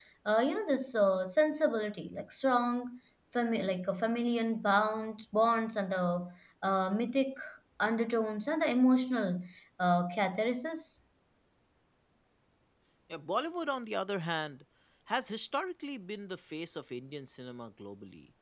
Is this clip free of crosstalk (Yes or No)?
Yes